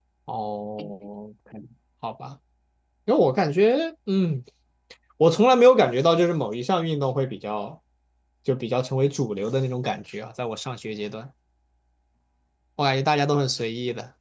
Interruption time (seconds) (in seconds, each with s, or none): none